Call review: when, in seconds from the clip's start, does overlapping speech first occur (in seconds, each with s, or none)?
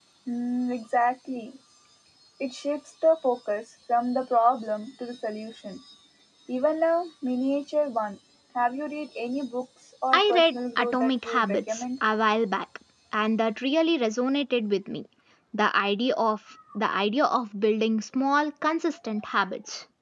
10.1 s